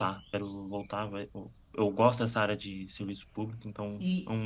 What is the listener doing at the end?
taking over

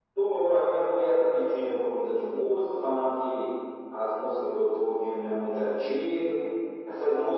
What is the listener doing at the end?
listening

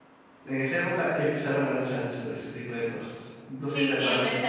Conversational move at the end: taking over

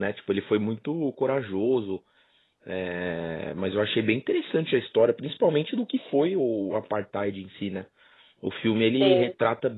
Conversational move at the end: listening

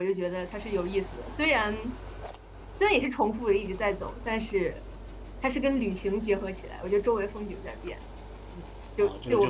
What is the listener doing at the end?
taking over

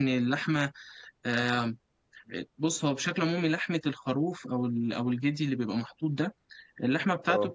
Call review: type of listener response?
listening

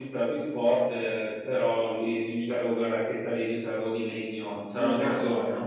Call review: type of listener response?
taking over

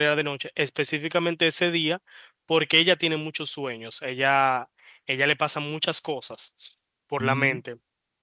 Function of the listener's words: listening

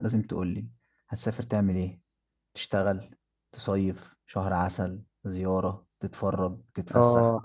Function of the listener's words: taking over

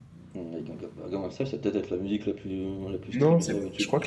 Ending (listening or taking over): taking over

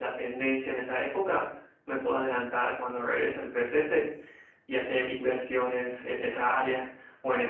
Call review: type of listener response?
taking over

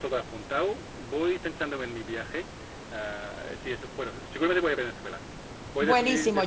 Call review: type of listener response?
taking over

